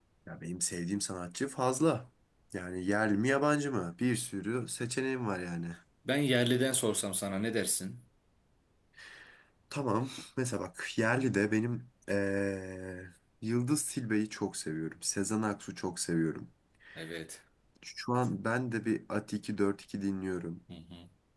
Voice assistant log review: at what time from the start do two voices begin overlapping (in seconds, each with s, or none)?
none